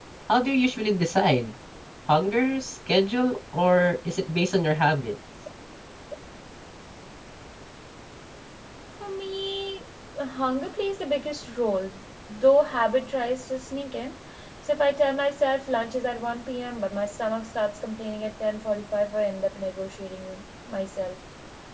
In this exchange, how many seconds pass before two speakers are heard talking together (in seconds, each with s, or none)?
none